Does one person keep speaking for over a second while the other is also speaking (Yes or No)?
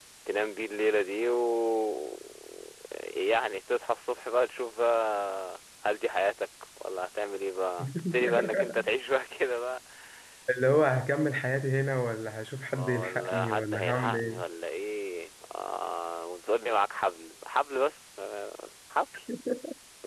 Yes